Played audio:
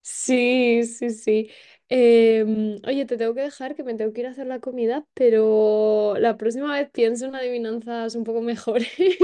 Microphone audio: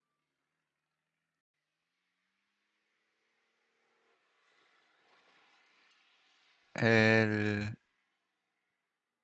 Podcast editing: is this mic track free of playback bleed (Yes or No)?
Yes